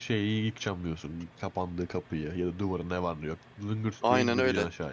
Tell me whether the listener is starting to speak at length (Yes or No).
Yes